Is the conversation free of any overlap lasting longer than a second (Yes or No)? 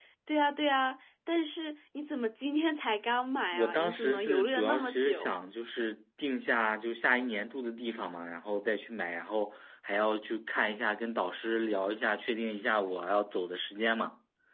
No